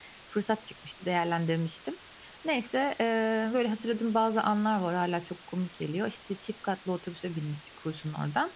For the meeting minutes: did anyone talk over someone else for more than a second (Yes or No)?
No